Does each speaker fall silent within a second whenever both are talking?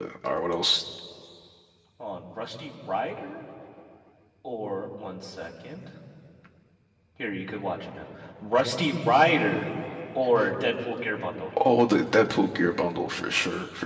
Yes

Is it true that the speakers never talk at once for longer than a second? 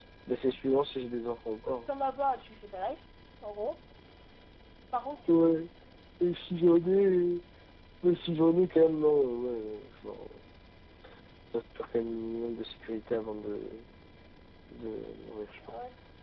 Yes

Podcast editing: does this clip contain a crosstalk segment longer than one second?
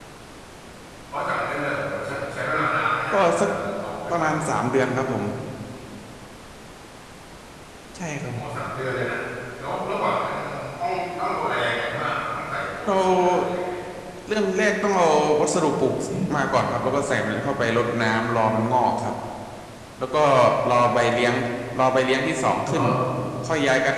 No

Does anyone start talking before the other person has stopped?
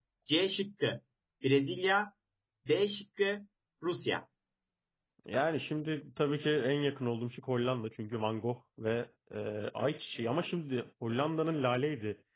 No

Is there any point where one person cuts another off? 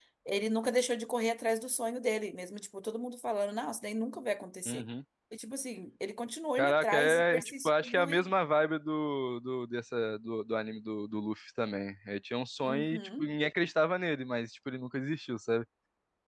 Yes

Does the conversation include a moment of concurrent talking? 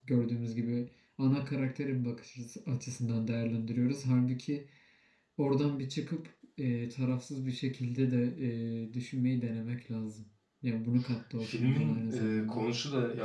Yes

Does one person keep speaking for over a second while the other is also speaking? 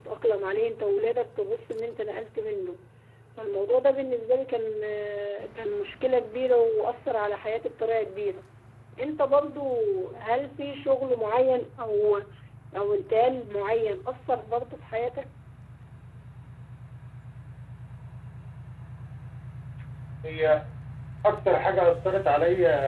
No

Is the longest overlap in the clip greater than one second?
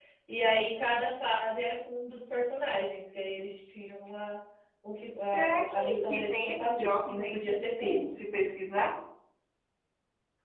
Yes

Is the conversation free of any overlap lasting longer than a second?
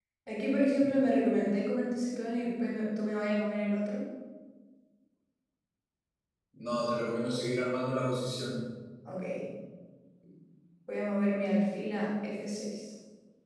Yes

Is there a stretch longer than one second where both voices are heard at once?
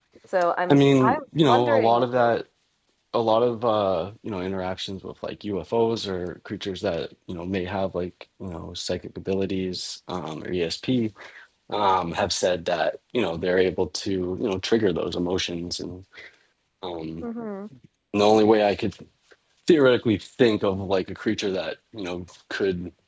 Yes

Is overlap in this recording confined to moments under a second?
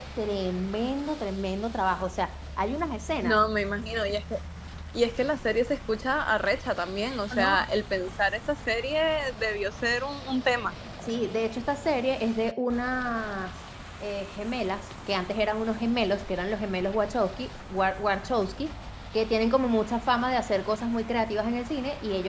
Yes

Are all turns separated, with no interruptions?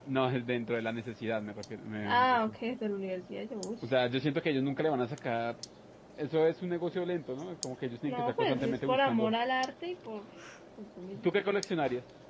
No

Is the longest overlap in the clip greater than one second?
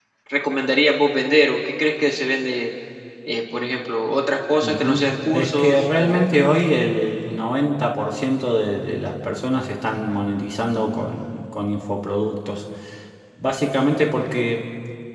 Yes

